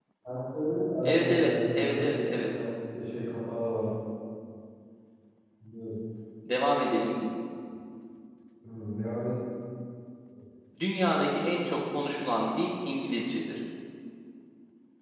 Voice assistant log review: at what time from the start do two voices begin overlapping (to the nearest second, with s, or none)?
1 s